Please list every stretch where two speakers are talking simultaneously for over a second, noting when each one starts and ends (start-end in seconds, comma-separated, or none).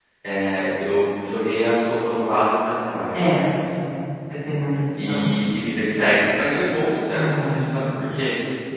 none